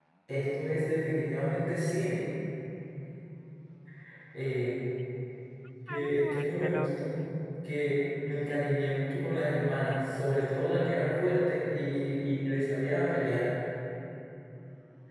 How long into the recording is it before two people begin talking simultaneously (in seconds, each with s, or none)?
5.9 s